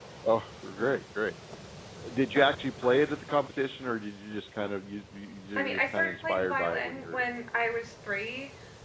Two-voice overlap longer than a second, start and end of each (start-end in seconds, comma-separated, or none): 5.6-7.2